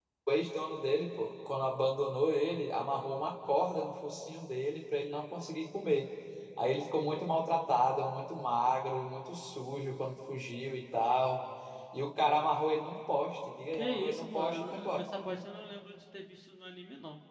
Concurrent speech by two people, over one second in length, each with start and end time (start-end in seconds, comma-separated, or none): 13.7-15.0